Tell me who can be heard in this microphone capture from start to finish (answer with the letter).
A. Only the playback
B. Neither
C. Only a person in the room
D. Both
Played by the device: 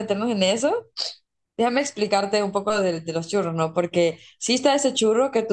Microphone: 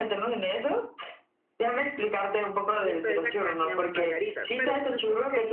D